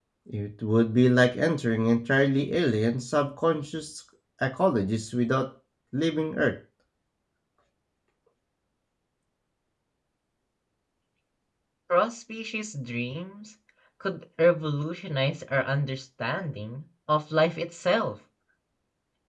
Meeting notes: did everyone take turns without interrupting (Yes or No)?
Yes